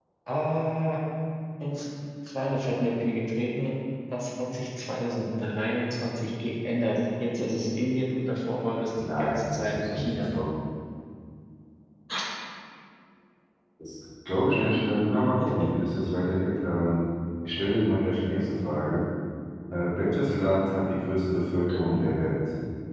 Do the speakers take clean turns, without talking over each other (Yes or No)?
No